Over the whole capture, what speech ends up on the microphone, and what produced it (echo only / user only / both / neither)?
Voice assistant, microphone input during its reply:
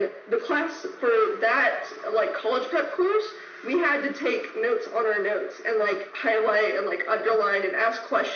echo only